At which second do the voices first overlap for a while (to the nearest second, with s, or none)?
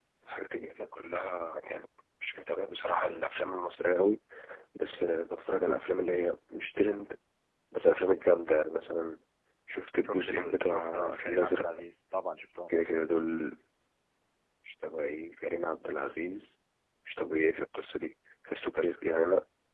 10 s